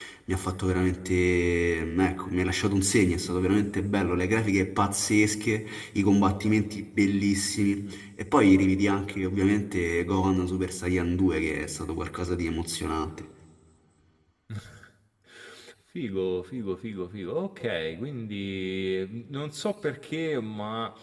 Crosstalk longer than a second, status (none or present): none